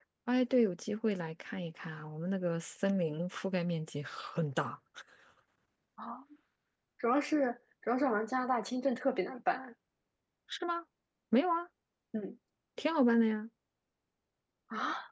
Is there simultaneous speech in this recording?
No

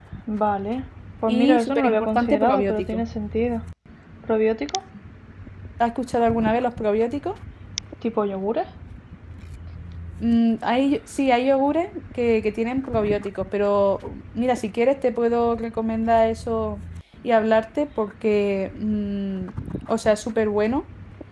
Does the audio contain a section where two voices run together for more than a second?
Yes, from 1.3 s

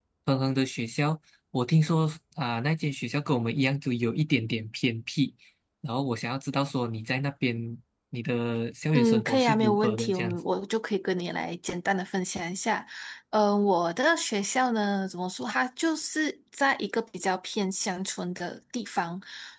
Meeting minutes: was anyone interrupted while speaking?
Yes, from 8.9 s

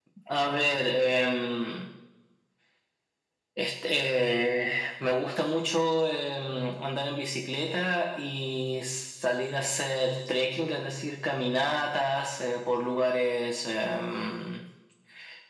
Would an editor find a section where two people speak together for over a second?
No

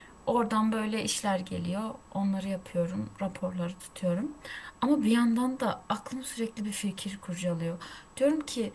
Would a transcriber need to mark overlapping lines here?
No

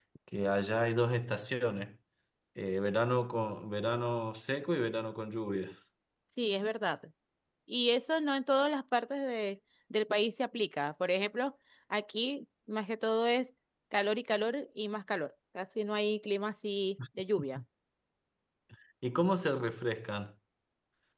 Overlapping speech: No

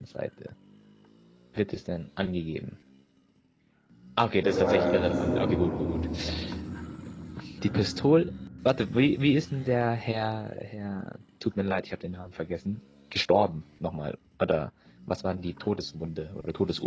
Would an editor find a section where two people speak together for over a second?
Yes, from 4.4 s

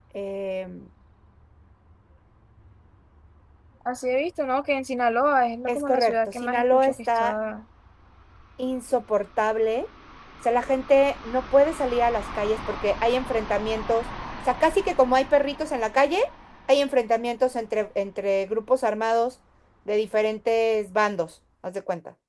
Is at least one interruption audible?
Yes, from 5.7 s

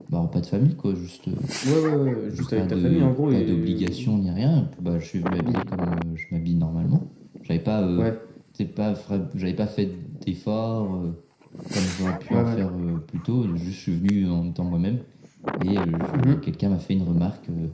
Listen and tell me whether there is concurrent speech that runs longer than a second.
Yes, from 2.3 s

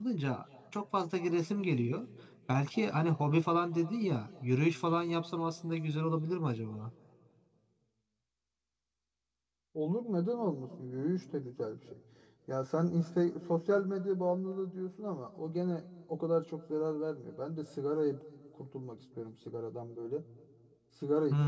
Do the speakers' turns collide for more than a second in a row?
No

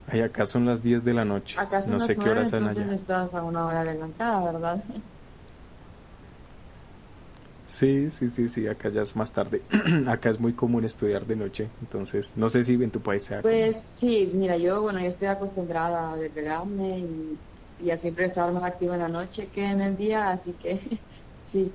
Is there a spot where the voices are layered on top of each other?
Yes, from 1.6 s

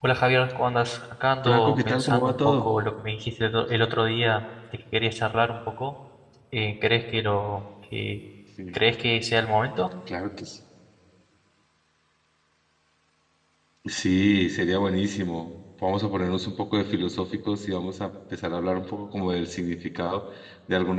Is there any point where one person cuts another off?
Yes, from 1.4 s

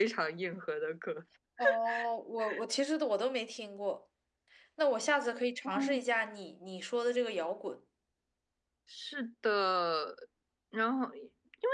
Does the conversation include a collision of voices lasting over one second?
No

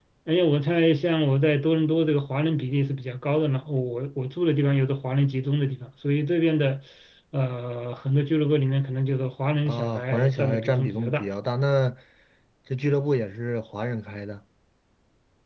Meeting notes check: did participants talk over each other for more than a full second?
Yes, from 9.7 s

